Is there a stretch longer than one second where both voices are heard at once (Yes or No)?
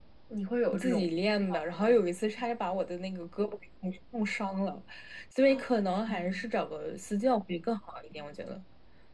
Yes